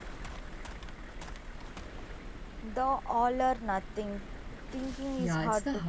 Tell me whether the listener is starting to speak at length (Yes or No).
Yes